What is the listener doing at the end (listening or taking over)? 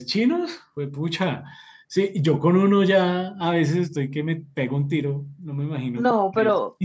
taking over